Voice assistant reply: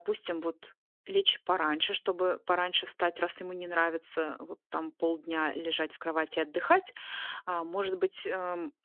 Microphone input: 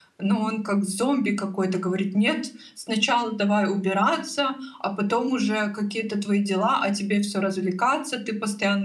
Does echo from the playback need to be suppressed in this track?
No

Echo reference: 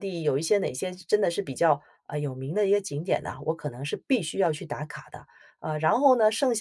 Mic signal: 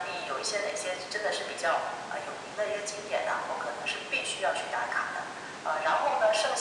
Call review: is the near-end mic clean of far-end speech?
No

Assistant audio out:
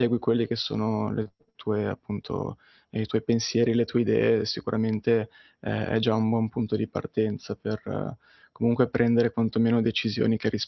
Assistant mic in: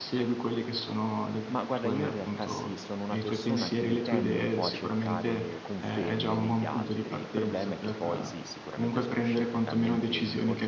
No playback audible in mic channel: No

